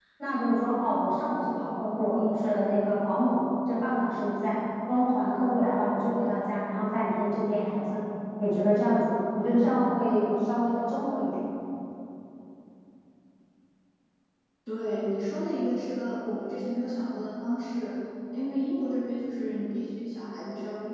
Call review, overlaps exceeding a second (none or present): none